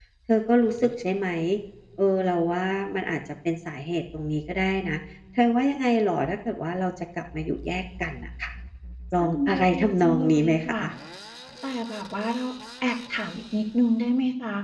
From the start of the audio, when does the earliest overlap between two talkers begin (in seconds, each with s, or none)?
9.2 s